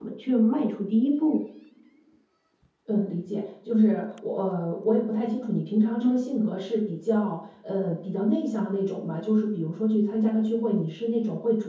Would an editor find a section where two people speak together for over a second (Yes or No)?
No